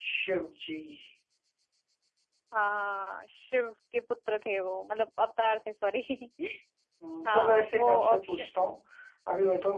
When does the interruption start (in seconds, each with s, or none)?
7.3 s